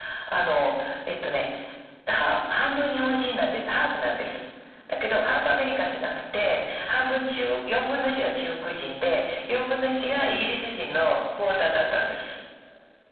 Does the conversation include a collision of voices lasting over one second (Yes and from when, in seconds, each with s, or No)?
No